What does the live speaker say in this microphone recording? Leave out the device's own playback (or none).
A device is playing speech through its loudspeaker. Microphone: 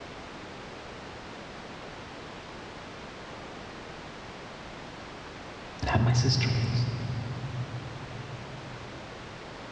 that my sister makes.